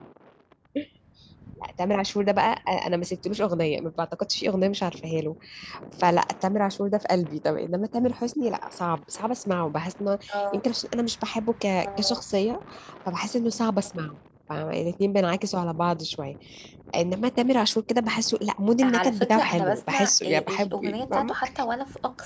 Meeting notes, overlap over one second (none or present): present